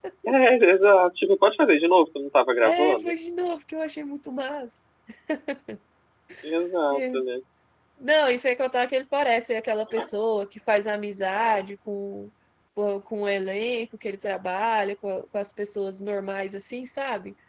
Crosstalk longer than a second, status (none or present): none